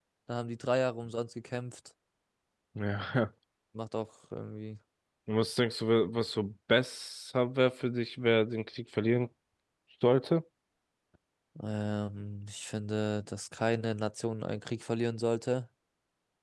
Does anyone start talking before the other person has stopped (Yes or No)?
No